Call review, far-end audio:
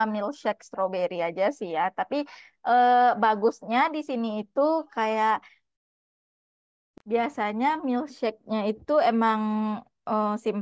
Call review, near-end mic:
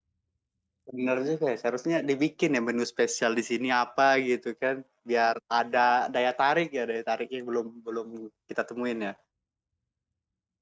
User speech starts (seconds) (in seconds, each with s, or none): 0.9 s